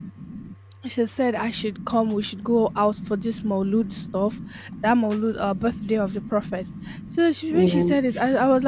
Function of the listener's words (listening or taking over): listening